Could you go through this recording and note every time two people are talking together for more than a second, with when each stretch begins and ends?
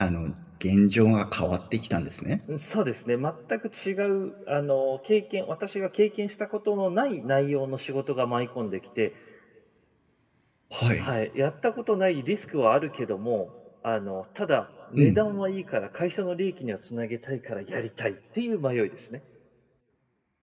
none

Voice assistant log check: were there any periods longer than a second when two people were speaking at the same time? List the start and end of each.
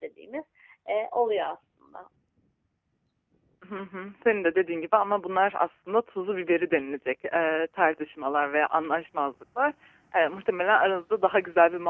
none

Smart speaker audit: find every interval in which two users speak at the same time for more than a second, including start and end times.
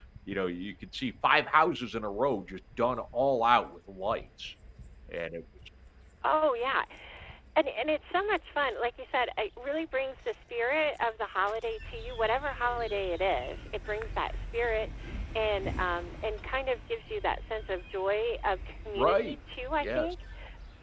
none

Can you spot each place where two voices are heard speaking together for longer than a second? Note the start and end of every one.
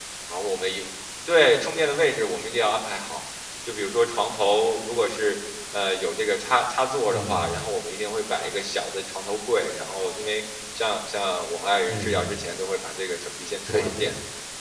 none

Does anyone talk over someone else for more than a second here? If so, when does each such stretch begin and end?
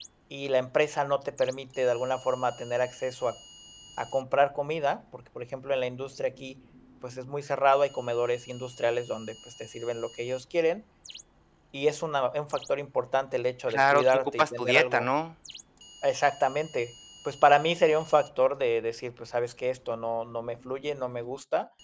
13.7-15.1

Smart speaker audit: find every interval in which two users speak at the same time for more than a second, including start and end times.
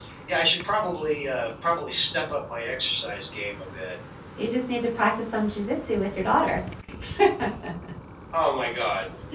none

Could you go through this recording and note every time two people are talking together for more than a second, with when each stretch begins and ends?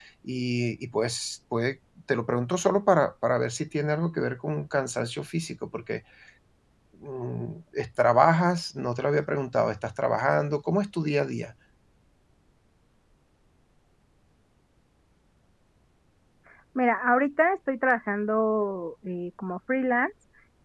none

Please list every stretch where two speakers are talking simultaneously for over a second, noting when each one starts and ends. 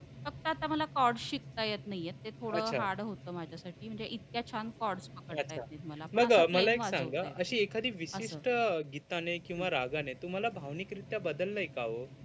6.2-7.3

